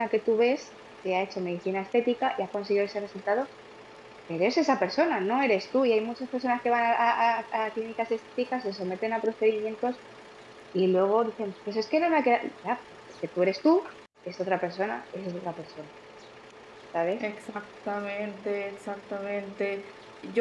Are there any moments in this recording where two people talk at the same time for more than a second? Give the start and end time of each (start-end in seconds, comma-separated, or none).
none